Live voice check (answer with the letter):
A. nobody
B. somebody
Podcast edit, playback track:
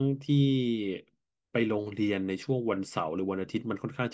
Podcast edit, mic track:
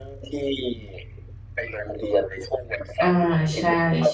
B